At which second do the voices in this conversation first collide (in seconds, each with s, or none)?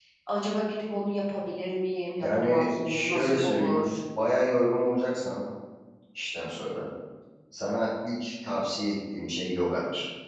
2.2 s